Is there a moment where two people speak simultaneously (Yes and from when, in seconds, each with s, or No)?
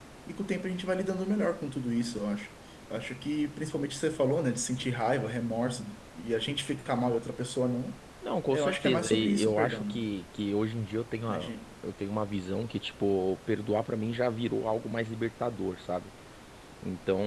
Yes, from 8.5 s